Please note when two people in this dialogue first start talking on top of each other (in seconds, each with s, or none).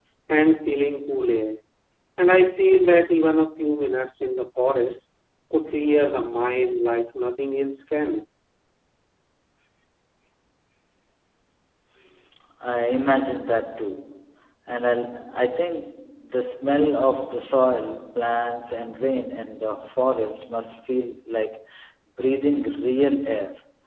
none